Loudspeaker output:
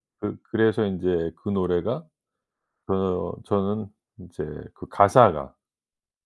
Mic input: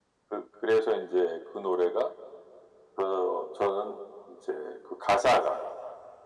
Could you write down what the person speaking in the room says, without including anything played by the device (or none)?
none